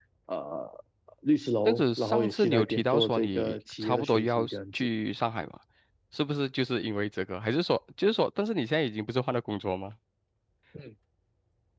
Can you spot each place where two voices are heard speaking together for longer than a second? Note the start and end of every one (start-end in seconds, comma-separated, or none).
1.6-4.9